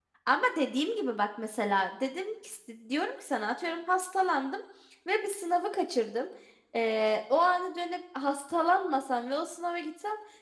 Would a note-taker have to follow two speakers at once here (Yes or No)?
No